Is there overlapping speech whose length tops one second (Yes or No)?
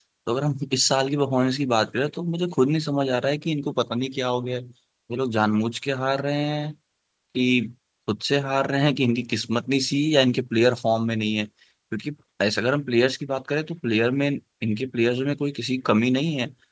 No